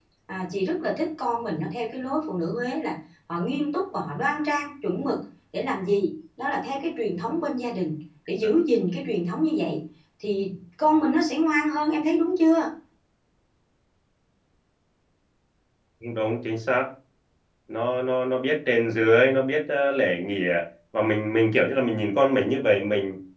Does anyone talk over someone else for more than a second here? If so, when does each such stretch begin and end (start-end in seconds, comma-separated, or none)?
none